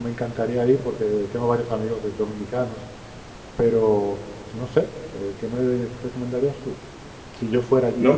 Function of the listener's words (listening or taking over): taking over